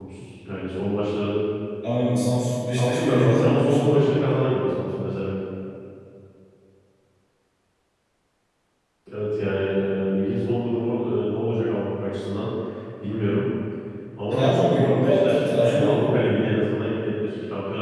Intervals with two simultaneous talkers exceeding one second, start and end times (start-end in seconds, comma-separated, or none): 2.8-4.1, 14.3-16.1